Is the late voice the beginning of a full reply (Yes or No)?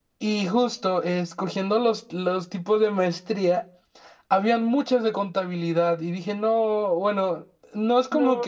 No